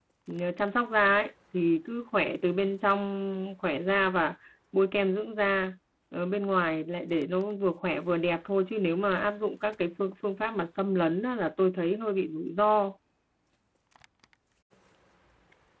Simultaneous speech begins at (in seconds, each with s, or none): none